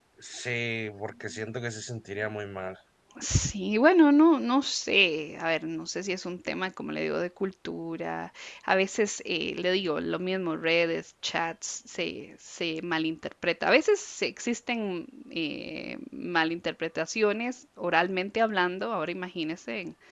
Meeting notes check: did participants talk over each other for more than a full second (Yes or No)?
No